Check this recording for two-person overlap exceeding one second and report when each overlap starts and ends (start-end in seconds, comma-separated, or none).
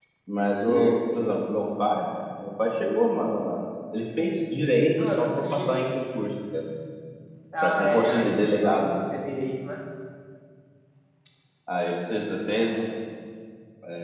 7.6-8.9